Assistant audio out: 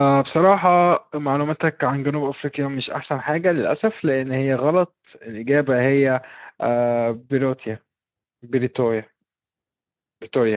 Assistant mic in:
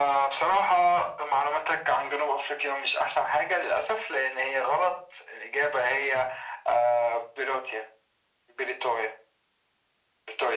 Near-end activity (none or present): none